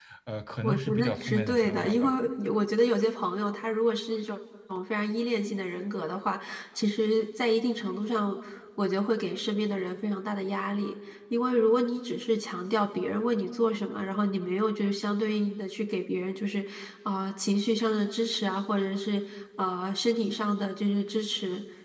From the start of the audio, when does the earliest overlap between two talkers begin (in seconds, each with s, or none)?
0.6 s